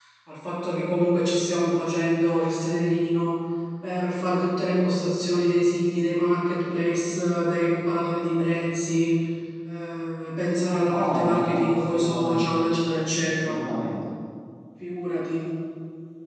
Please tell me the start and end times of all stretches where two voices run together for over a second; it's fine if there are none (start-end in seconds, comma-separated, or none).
10.8-12.5